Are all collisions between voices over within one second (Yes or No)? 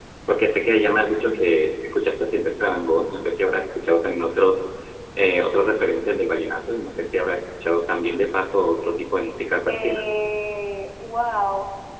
Yes